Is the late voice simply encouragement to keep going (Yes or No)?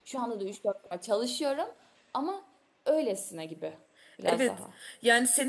No